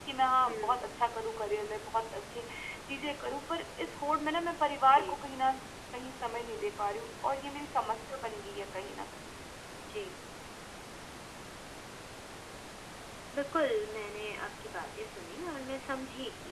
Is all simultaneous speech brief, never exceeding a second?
Yes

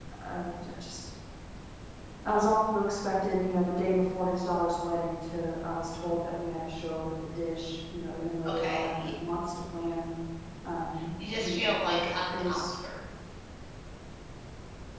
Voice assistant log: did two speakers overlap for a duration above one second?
Yes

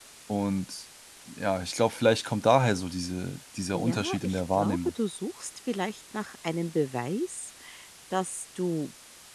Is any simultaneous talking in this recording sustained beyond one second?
Yes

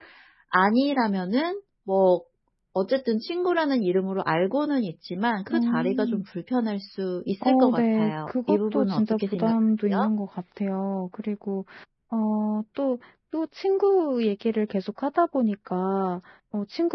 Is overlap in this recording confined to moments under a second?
No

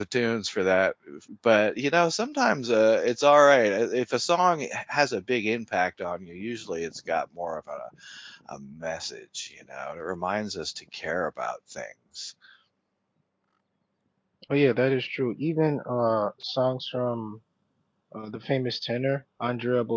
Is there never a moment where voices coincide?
Yes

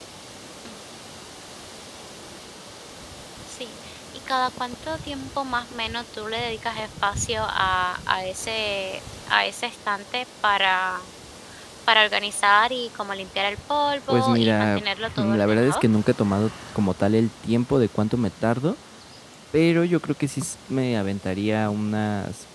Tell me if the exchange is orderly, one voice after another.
No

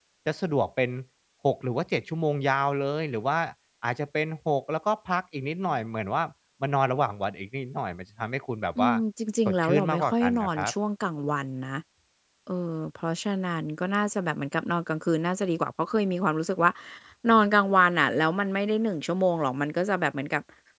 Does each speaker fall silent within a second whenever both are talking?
No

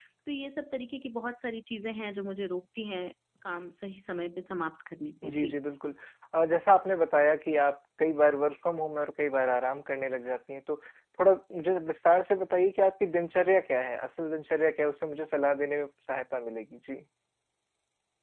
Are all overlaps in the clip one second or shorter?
Yes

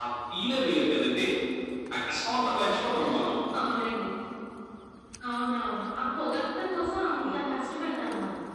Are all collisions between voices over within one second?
Yes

